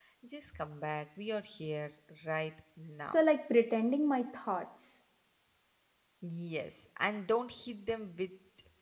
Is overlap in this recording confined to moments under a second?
Yes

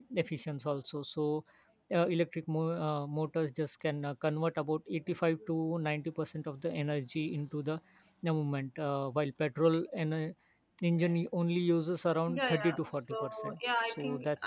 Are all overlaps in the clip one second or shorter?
No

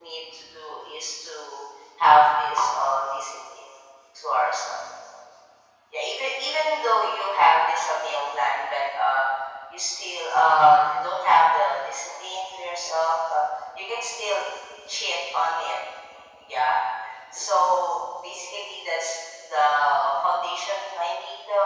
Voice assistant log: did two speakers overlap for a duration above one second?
No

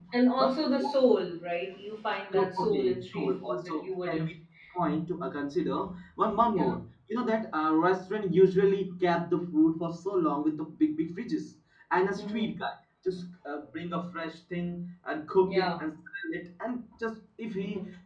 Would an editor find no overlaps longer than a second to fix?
No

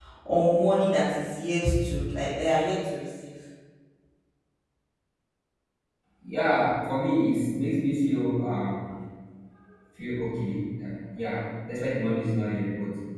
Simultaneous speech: No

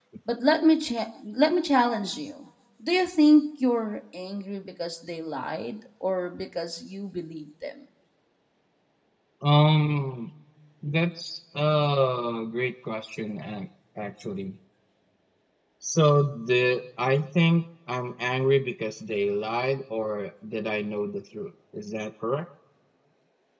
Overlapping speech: No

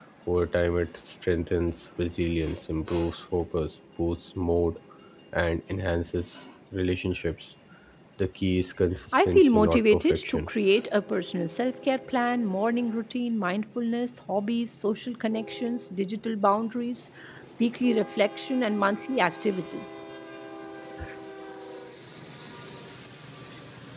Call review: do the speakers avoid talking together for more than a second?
No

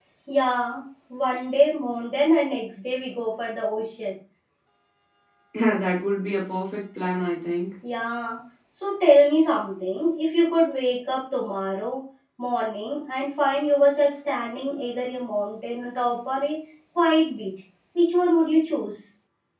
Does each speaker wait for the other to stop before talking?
Yes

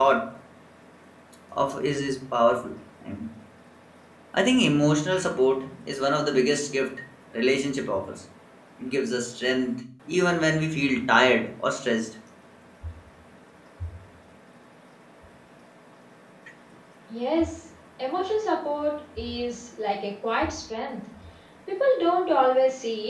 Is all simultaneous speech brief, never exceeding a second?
Yes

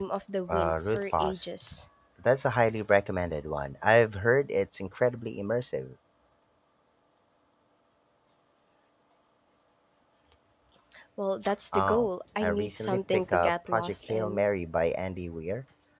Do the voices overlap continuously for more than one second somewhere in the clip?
Yes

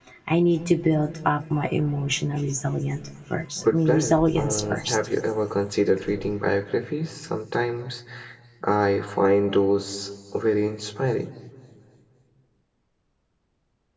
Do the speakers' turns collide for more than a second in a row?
Yes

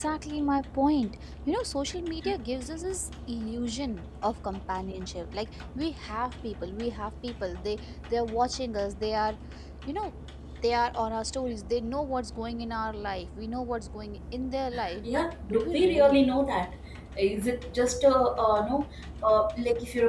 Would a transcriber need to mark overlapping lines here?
Yes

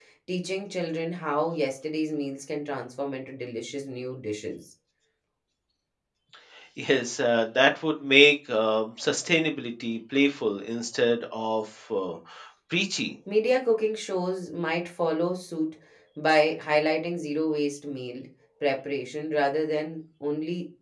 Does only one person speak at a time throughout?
Yes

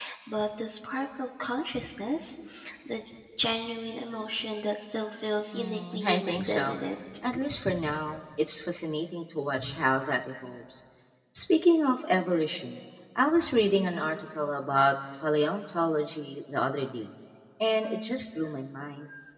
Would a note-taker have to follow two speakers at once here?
Yes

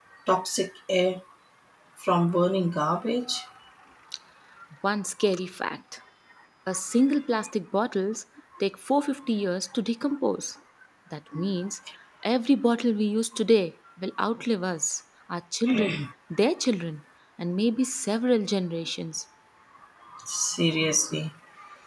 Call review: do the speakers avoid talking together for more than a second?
Yes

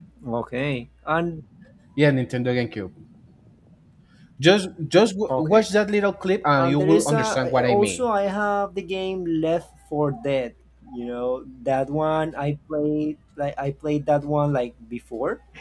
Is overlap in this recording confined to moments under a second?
No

